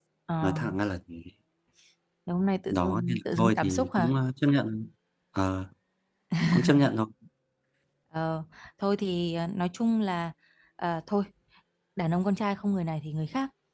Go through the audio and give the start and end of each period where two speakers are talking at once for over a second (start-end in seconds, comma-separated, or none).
2.7-4.1